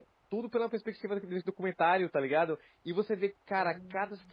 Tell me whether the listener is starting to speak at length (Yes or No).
No